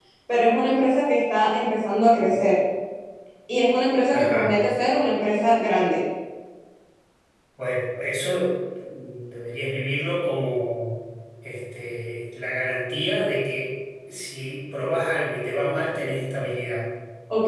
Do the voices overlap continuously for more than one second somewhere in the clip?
No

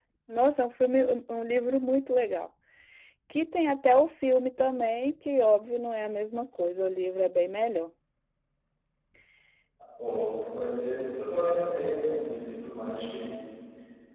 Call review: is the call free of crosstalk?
Yes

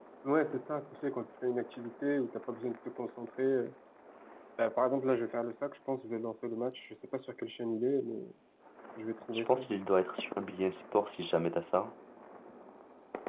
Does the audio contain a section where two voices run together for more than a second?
No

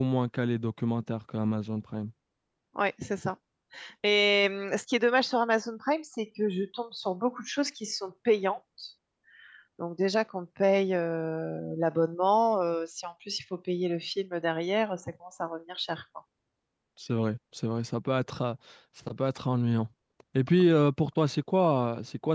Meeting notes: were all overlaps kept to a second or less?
Yes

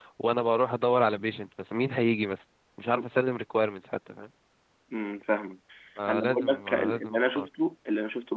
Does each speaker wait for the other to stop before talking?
No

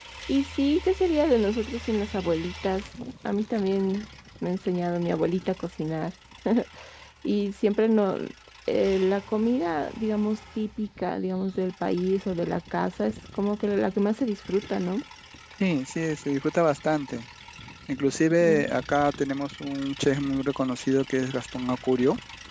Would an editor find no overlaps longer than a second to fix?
Yes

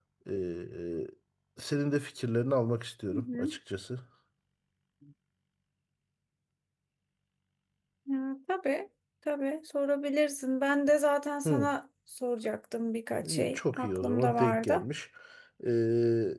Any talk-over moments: Yes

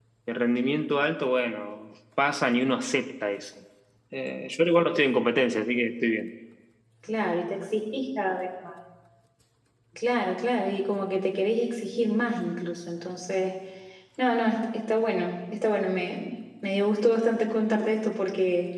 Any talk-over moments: No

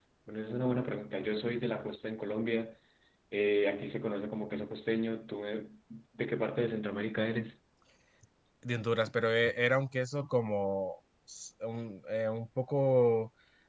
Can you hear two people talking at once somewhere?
No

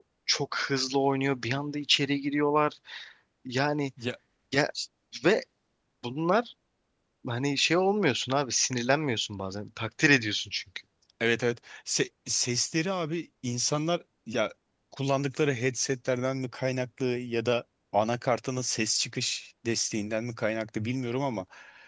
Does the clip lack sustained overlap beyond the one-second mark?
Yes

